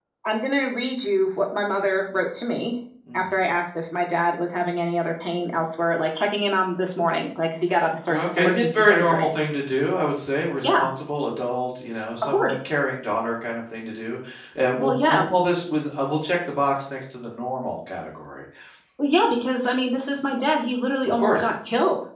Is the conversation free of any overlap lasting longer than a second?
No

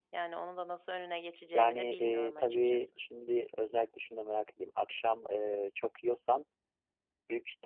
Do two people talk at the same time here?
Yes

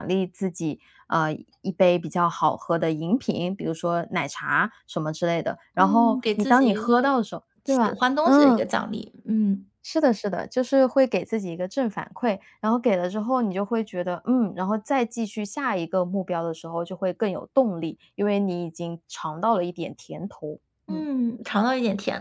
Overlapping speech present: Yes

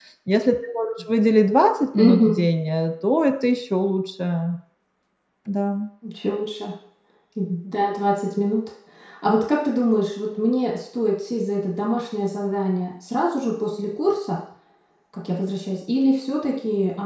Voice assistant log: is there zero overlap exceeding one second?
Yes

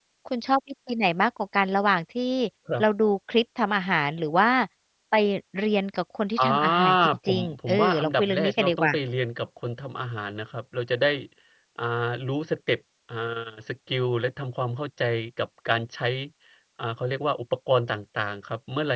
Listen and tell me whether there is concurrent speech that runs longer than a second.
Yes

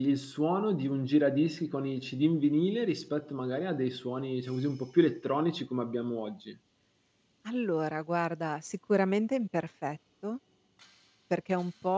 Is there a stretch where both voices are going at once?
No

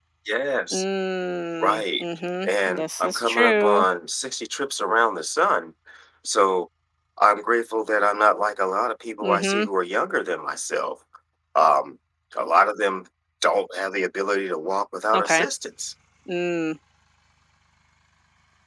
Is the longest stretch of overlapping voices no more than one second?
No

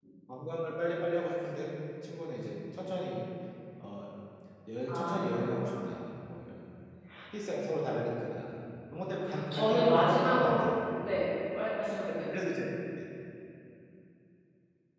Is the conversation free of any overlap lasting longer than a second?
No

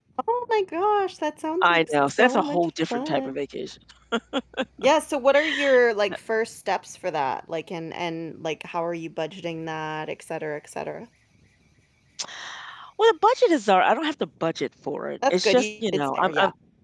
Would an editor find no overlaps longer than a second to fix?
No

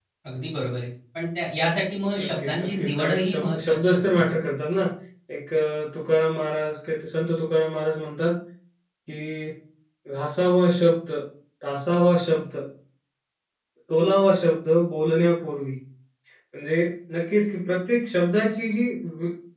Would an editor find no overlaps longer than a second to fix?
No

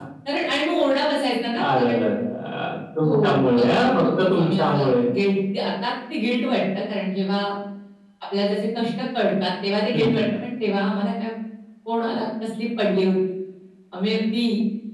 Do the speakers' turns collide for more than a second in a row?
Yes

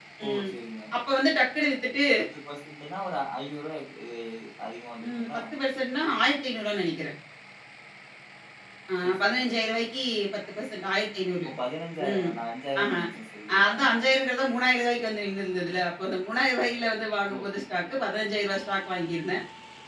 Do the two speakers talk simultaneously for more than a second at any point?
No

